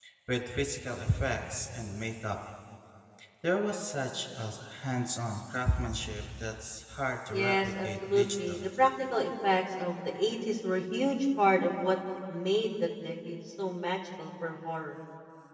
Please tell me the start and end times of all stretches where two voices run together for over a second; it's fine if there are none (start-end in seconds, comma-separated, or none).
7.3-8.7